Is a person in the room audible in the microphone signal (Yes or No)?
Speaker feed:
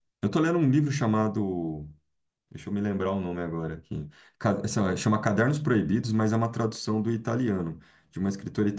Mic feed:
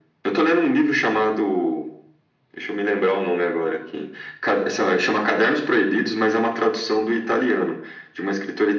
No